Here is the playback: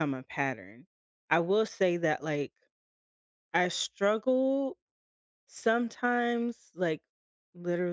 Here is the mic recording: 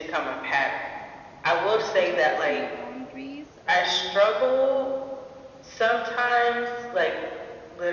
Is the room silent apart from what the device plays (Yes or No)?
No